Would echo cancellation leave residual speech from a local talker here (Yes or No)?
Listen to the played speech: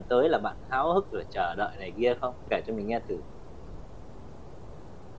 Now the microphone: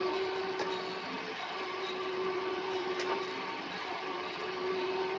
No